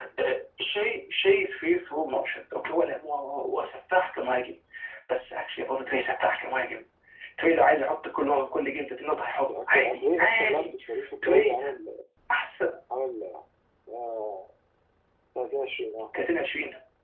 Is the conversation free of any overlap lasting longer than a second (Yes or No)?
No